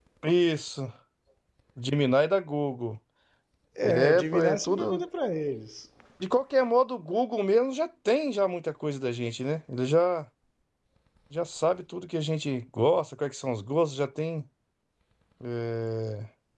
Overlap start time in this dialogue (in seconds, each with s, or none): 3.8 s